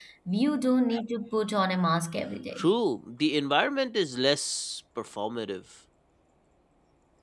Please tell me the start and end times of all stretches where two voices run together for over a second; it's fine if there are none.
none

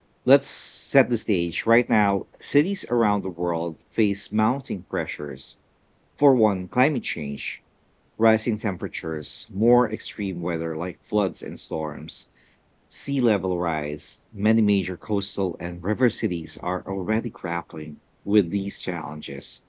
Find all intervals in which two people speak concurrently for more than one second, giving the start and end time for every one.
none

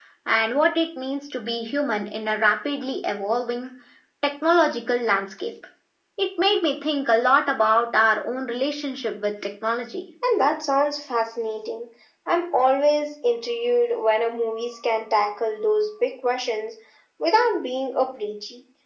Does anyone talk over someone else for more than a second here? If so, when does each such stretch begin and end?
none

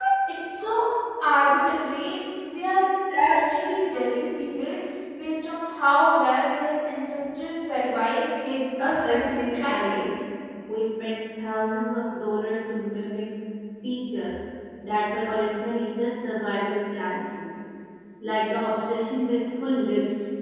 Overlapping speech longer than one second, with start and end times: 8.8-10.0

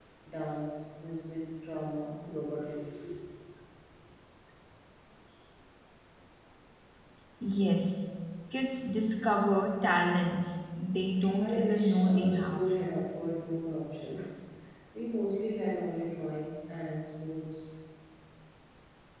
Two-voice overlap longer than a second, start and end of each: 11.4-12.6

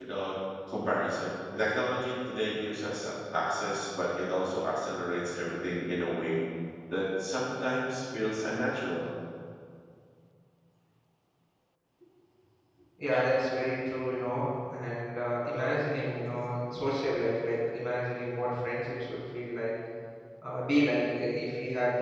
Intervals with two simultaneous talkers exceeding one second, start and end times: none

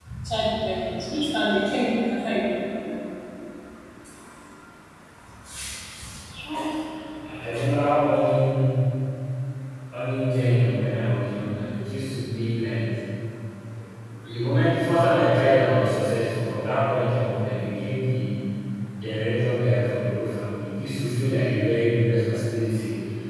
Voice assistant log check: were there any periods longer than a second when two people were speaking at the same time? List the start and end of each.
none

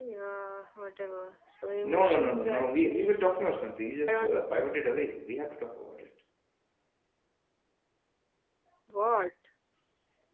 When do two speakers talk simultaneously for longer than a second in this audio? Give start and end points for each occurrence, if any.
1.9-3.2

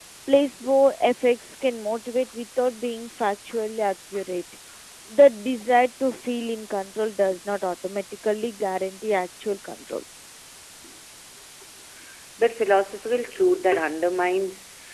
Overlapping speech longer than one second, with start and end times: none

